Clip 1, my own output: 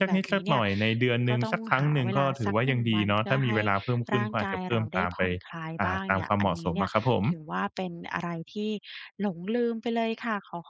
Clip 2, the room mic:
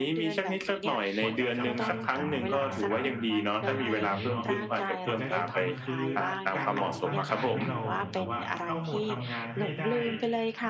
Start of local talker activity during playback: 1 s

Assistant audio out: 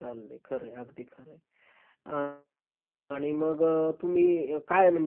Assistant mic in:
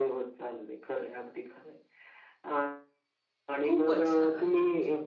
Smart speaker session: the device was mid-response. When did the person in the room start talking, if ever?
4 s

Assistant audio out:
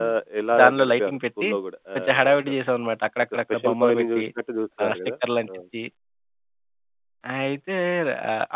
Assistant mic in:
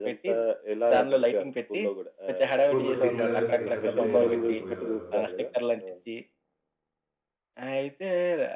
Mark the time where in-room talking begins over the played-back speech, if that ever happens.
3 s

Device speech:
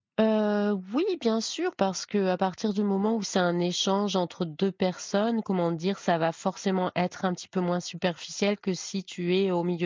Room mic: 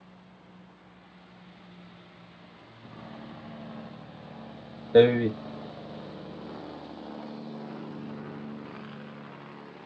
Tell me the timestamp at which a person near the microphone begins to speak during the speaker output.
5 s

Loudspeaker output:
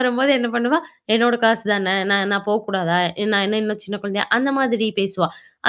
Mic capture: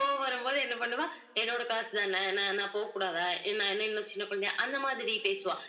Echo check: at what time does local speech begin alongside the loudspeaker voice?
none

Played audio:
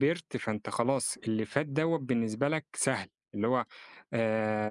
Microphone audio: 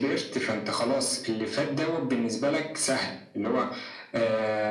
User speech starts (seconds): none

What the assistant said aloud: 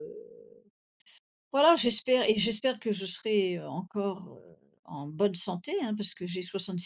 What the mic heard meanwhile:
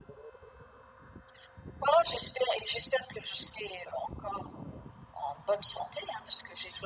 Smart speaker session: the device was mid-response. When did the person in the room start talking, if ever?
none

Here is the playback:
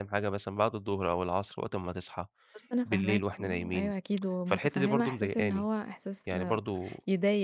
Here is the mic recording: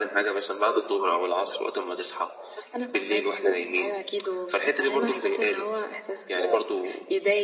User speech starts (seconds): none

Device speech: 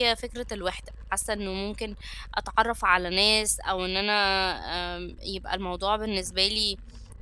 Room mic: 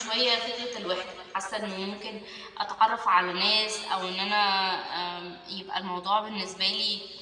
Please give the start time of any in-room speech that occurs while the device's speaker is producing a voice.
none

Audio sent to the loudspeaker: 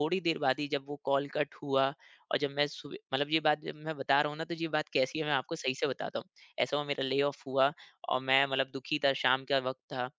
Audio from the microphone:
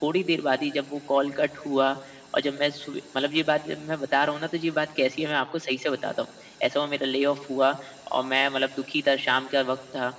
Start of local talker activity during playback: none

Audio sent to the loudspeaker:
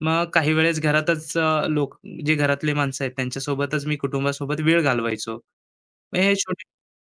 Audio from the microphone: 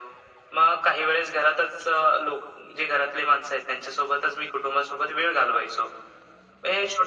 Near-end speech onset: none

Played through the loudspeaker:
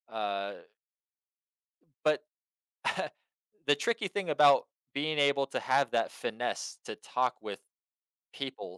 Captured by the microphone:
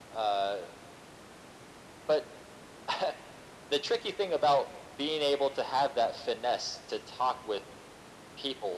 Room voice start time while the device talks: none

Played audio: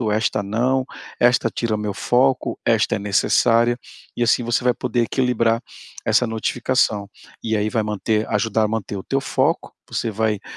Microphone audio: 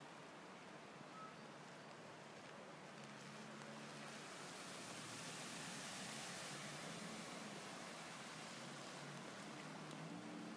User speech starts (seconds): none

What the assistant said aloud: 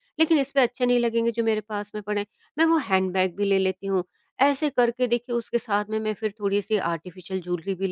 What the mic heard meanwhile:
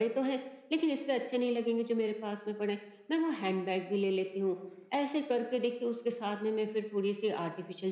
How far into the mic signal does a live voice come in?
none

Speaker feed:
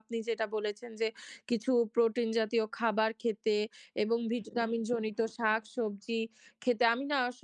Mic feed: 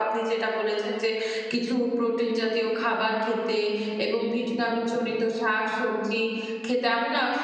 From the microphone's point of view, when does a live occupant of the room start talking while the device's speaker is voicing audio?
none

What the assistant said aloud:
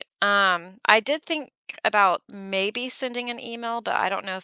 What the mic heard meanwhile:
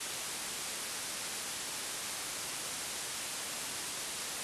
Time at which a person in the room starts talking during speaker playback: none

